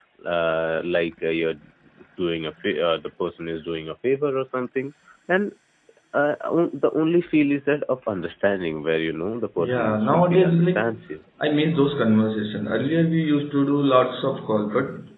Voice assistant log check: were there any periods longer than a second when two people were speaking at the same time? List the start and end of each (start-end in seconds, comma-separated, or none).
9.6-10.8